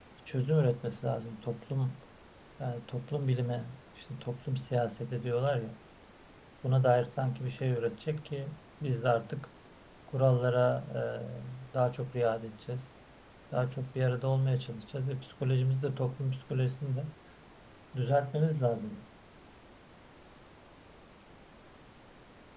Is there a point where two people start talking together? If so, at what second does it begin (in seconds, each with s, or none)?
none